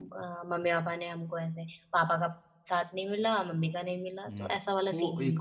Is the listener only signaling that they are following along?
No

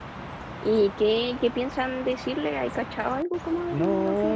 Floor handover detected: Yes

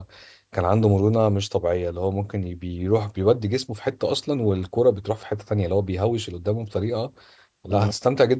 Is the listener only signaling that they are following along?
Yes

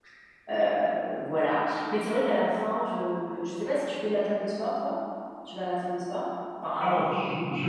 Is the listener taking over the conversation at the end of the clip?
Yes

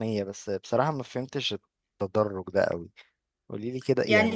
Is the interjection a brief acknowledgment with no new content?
No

